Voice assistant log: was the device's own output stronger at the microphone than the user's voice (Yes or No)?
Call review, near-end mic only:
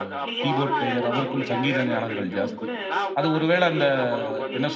No